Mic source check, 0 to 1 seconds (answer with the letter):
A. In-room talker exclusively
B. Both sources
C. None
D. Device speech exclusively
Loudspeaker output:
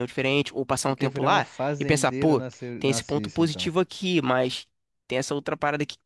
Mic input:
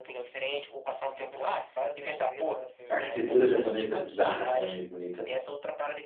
D